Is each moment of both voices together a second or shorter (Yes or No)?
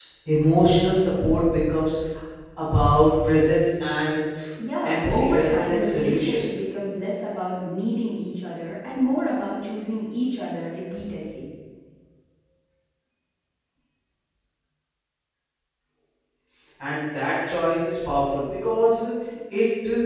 No